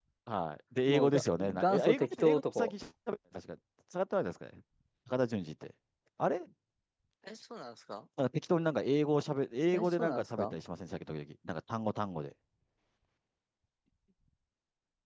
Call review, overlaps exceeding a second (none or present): present